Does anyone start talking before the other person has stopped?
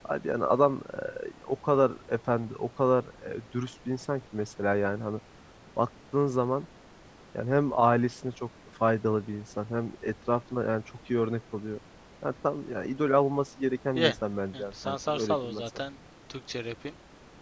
Yes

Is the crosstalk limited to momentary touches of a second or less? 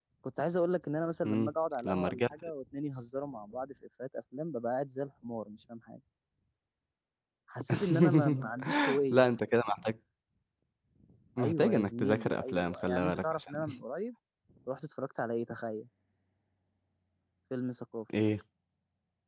No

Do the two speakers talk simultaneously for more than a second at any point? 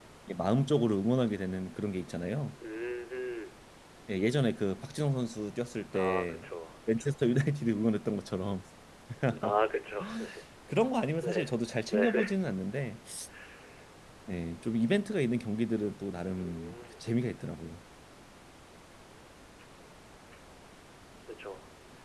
No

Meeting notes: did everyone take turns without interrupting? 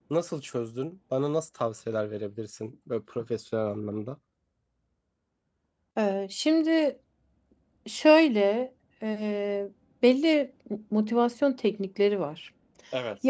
Yes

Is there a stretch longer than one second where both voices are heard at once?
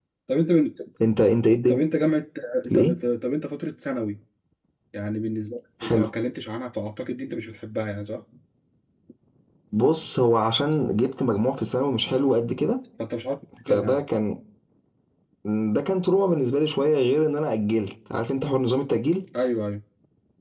No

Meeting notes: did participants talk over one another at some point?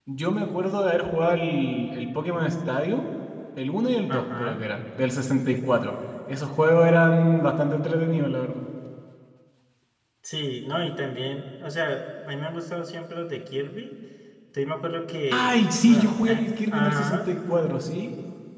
Yes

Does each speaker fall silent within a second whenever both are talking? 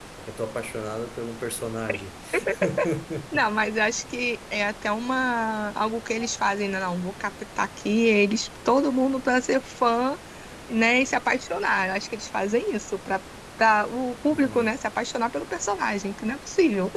Yes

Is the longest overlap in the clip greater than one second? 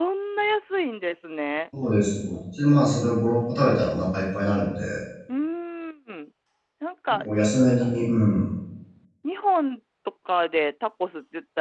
No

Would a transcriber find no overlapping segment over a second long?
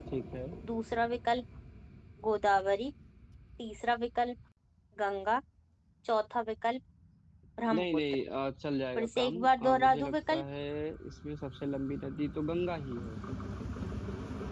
No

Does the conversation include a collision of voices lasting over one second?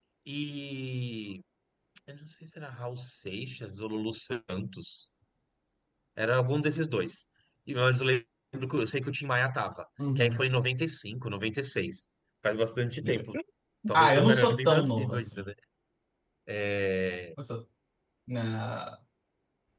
Yes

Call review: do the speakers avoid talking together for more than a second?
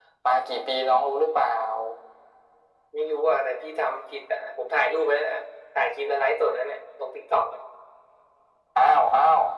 Yes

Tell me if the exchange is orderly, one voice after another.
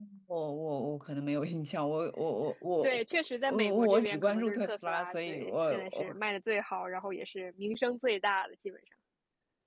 No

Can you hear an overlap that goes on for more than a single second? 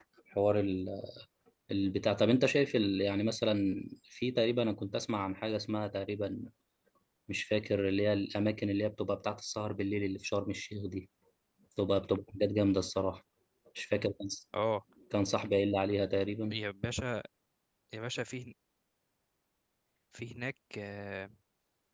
No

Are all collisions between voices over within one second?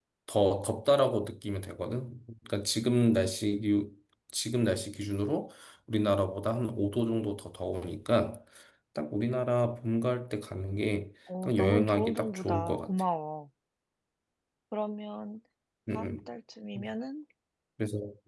No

